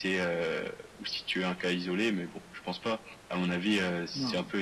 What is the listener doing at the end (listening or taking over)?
listening